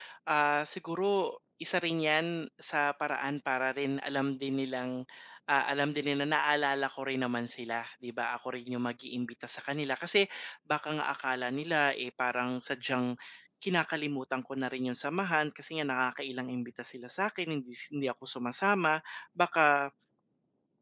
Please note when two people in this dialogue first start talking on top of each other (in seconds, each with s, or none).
none